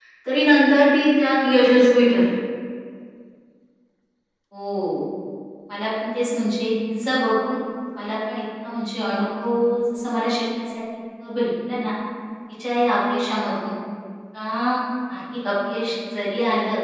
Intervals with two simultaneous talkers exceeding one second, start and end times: none

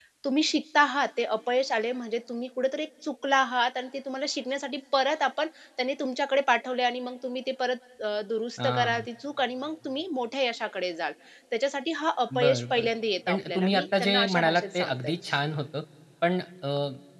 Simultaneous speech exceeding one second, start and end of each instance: 13.3-15.1

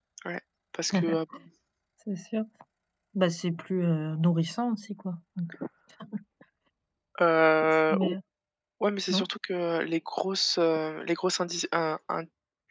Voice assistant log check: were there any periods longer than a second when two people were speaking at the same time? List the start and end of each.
none

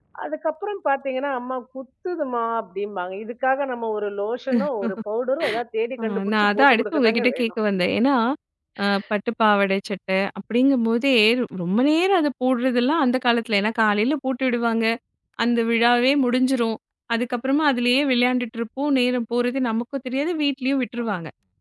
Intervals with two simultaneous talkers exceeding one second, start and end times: 6.0-7.5

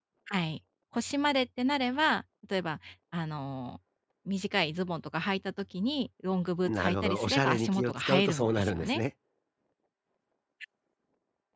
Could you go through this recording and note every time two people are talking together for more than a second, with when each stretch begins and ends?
6.7-9.0

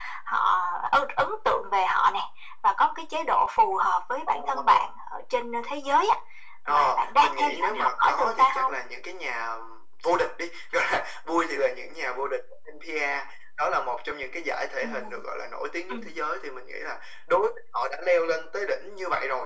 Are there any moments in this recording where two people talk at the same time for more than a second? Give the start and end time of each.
6.7-8.7

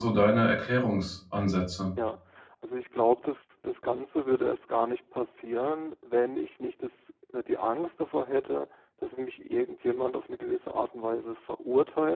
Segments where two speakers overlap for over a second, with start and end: none

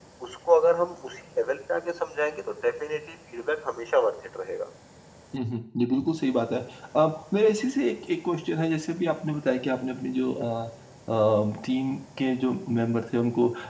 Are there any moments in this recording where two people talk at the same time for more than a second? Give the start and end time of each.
none

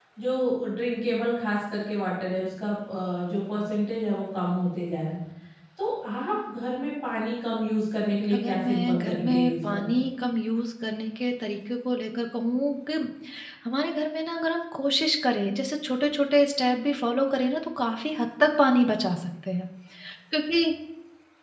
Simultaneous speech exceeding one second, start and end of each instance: 8.3-10.0

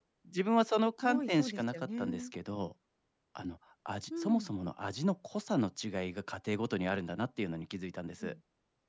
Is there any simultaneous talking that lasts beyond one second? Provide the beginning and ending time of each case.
1.0-2.3

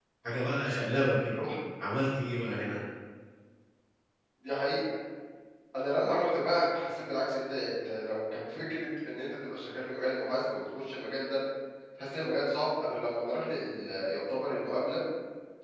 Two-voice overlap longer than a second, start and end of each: none

